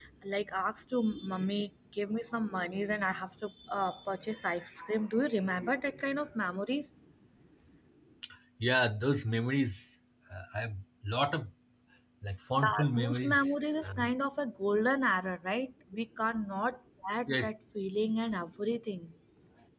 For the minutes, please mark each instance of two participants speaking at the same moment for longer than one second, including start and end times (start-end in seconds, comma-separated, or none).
12.6-14.1